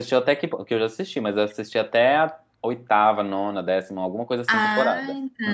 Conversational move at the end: taking over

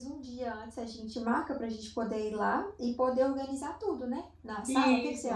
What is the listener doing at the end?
taking over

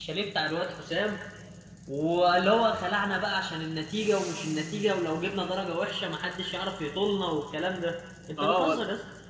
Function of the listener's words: taking over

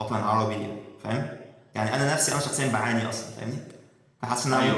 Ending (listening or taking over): listening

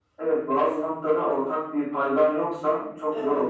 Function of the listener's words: listening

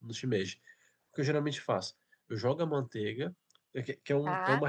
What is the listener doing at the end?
listening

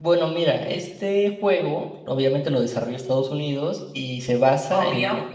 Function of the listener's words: listening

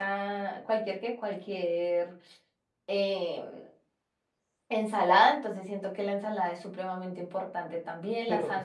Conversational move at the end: taking over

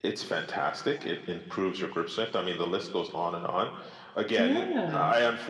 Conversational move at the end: listening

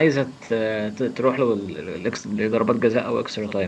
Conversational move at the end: taking over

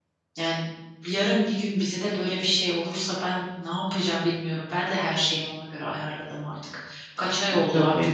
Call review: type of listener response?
listening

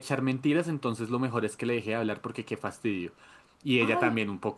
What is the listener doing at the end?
listening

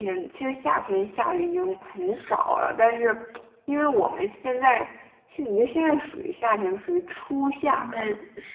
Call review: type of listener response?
taking over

